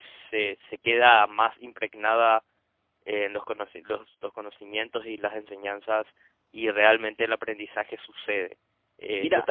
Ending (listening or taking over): taking over